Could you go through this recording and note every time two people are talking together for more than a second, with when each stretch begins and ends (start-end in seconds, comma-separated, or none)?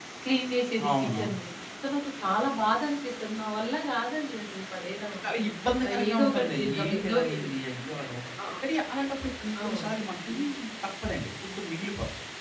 5.8-7.5